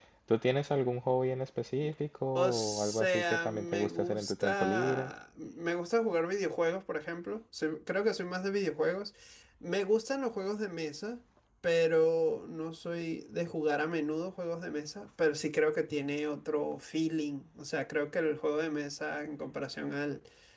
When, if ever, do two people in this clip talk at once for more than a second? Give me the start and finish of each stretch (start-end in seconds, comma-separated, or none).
2.4-5.1